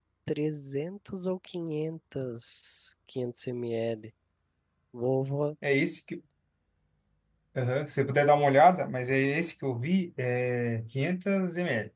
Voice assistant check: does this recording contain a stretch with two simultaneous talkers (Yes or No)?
No